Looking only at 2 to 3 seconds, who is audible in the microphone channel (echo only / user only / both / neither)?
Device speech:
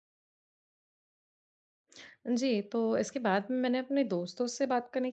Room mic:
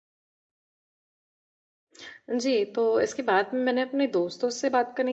echo only